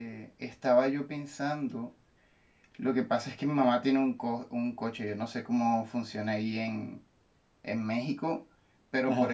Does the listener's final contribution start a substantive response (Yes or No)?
No